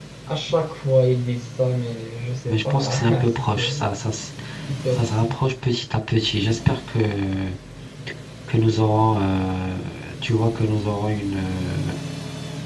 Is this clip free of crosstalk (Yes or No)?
No